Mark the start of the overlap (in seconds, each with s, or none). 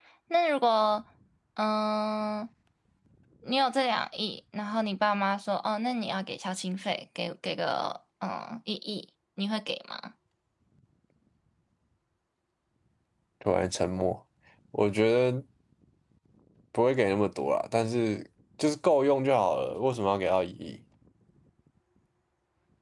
none